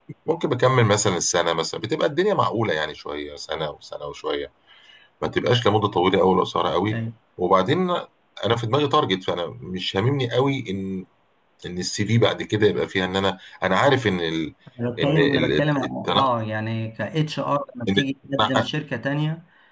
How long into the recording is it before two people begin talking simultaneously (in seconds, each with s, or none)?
15.0 s